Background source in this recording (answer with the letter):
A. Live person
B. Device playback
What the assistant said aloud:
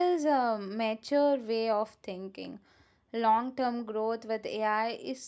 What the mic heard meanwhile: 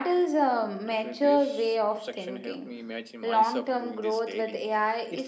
A